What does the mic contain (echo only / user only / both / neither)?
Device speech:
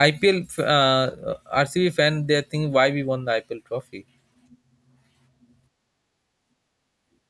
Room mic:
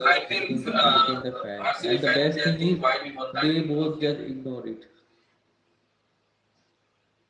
both